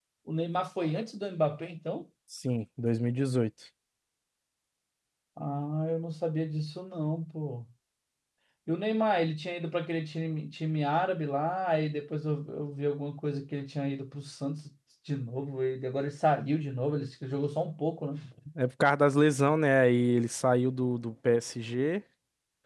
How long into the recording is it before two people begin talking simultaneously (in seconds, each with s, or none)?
none